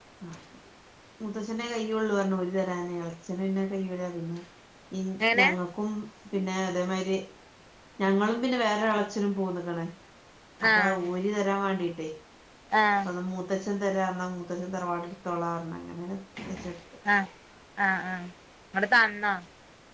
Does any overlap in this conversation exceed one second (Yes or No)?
No